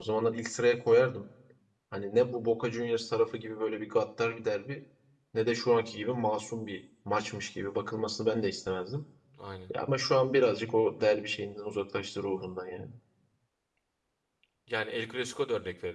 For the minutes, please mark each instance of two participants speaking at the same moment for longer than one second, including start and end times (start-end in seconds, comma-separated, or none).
none